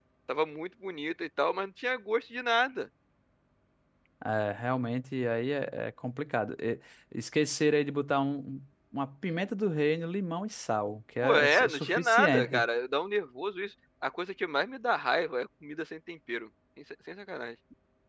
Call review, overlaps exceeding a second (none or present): present